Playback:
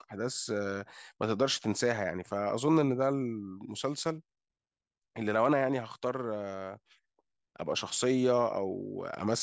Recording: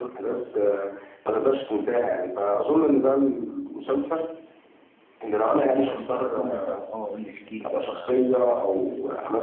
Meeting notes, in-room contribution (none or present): present